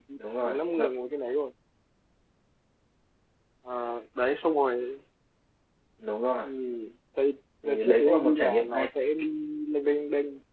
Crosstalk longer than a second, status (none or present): present